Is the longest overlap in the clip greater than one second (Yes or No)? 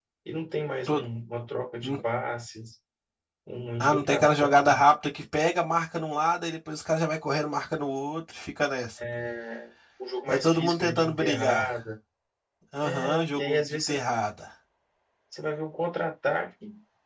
Yes